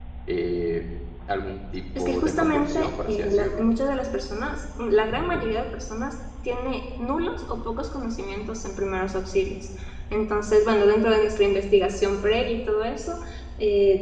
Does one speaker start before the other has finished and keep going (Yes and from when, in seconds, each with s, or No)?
Yes, from 2.0 s